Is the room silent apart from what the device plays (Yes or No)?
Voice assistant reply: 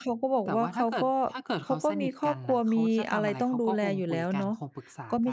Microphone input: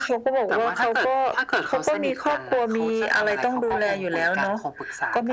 Yes